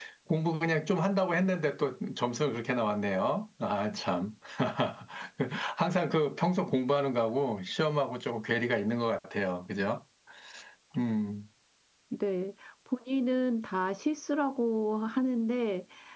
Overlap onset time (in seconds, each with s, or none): none